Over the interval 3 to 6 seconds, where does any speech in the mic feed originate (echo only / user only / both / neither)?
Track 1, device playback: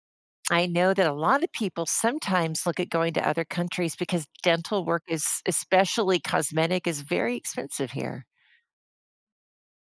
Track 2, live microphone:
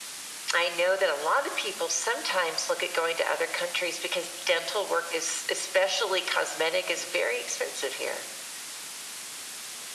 echo only